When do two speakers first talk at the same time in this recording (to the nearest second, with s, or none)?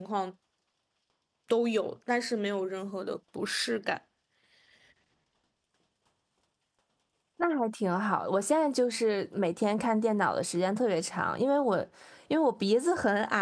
none